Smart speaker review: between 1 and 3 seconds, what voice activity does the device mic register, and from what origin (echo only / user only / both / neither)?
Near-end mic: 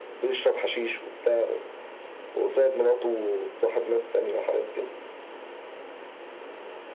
echo only